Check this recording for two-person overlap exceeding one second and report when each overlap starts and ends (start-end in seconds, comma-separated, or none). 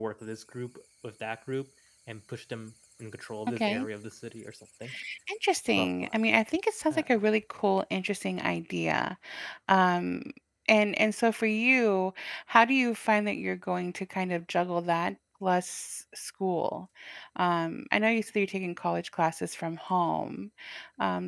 none